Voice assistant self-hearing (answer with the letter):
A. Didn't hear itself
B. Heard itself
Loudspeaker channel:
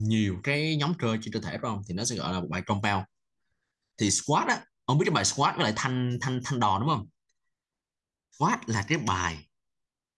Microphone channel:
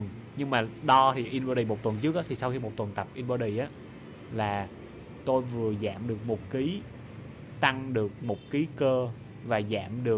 A